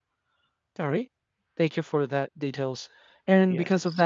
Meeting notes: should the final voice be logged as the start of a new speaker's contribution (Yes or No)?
No